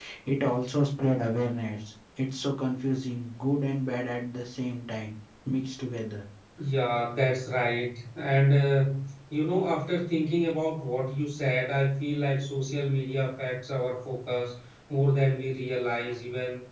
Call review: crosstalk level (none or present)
none